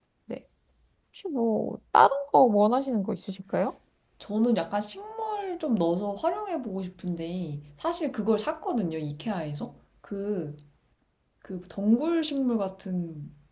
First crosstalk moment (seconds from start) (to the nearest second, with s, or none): none